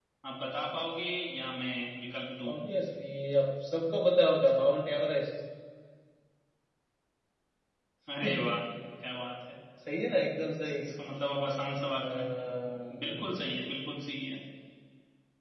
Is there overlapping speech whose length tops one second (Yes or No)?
No